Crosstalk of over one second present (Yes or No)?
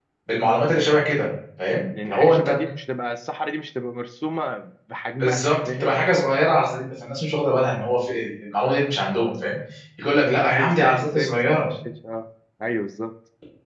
Yes